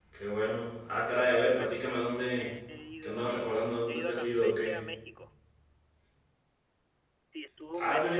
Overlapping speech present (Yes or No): Yes